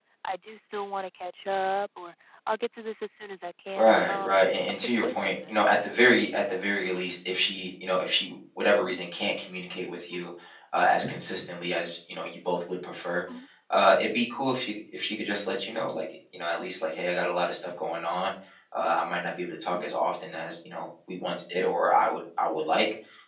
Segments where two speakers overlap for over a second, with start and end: 3.8-5.5

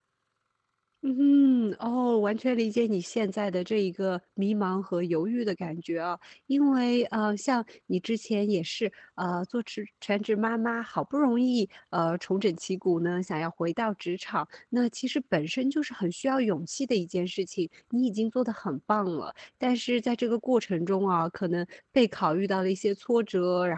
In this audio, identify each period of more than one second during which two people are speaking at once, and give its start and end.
none

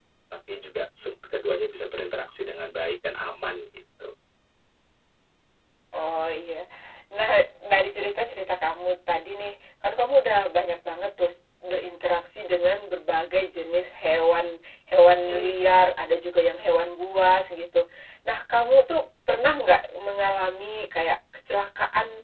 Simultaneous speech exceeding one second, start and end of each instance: none

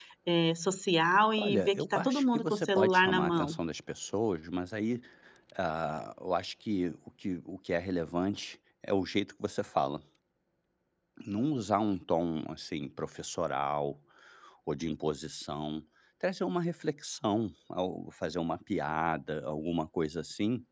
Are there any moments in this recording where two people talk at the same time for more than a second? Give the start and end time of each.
1.4-3.5

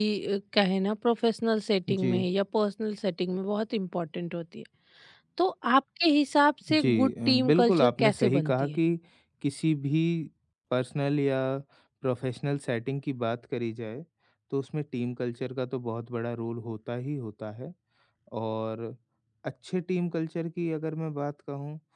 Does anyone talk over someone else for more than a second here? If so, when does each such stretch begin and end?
6.7-8.8

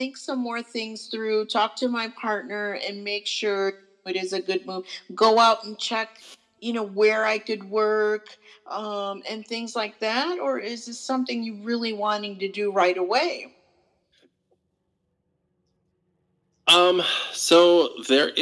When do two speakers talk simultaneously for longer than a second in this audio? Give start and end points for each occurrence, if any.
none

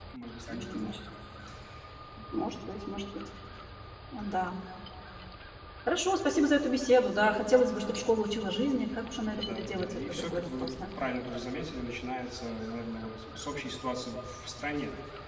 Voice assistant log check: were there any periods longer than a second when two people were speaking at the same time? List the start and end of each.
9.3-10.7

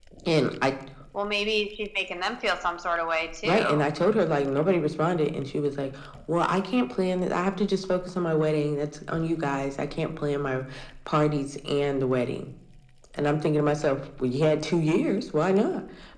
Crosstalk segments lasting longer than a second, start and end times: none

